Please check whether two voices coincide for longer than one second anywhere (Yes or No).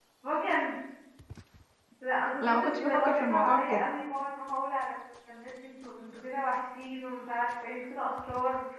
Yes